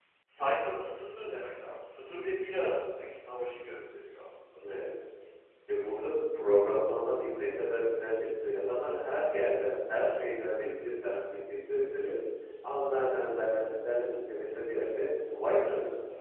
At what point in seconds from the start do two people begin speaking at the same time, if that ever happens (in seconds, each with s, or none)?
none